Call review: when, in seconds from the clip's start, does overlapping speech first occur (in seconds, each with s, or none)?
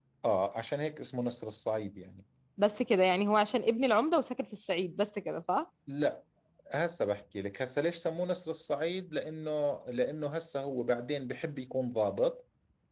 none